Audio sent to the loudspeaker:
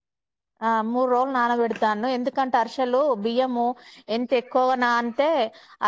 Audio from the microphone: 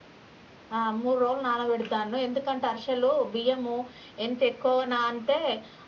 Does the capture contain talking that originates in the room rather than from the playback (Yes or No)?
No